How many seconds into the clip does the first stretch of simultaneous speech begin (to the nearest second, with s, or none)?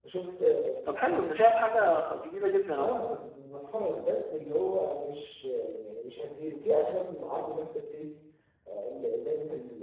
none